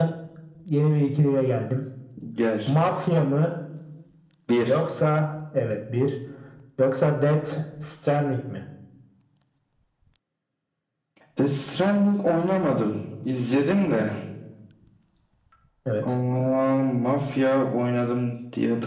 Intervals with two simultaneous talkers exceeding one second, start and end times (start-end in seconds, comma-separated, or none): none